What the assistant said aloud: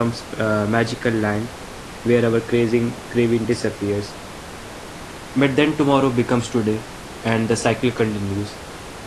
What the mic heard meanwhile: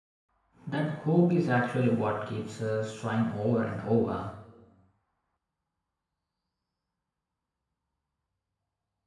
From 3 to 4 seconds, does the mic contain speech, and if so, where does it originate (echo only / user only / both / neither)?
user only